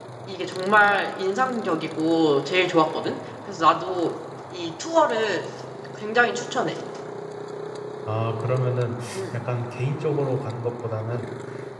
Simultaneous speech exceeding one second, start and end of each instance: none

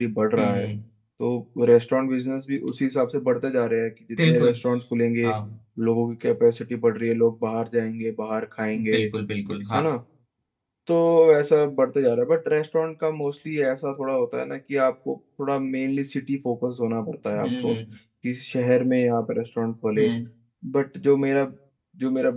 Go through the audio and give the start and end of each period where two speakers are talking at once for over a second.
none

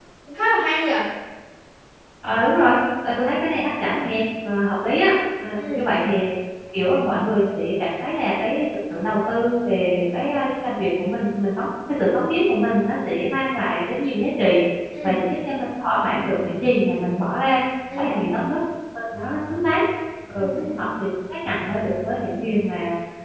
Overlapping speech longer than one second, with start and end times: none

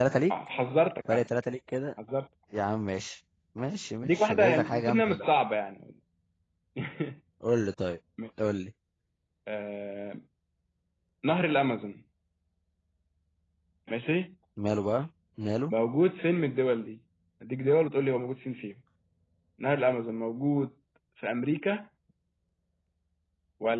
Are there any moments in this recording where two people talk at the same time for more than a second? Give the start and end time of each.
4.0-5.2

